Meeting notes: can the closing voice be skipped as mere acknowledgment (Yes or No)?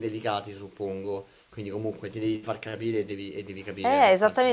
No